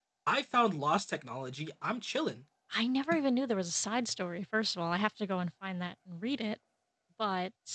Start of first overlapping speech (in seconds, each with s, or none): none